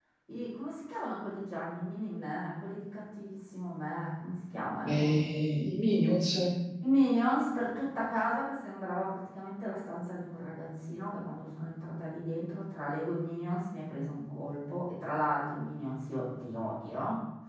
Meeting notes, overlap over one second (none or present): none